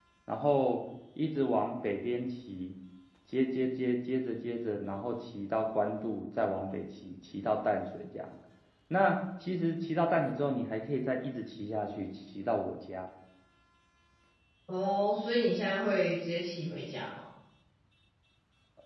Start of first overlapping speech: none

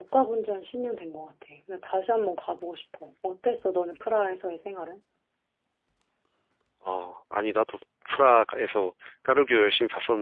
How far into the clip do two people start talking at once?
none

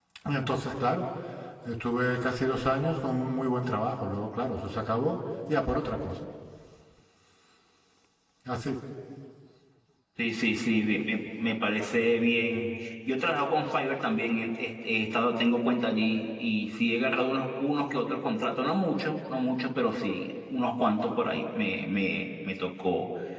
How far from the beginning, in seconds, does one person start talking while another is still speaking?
none

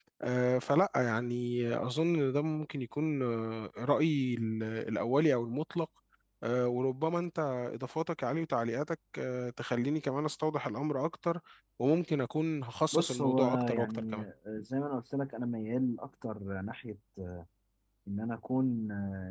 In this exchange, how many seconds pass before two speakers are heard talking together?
12.9 s

